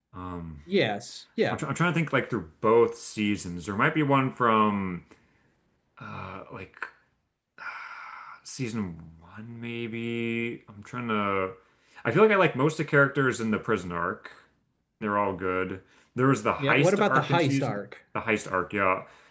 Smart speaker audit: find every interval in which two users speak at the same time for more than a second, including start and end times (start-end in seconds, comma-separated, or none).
16.6-17.8